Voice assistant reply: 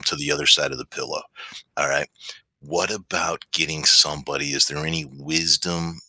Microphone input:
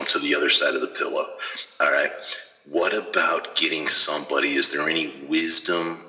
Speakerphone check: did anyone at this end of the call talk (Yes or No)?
No